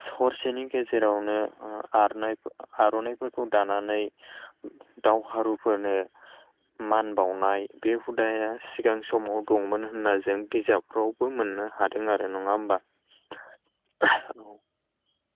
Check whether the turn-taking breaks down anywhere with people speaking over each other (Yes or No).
No